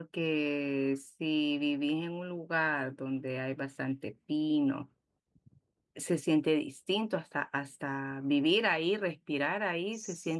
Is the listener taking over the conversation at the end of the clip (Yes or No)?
No